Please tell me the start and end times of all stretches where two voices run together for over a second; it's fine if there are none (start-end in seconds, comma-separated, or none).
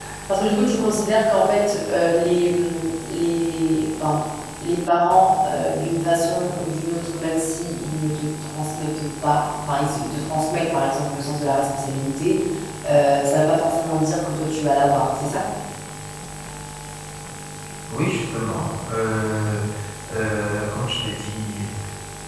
none